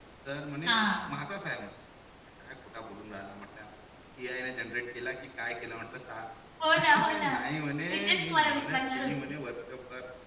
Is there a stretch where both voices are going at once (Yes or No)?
Yes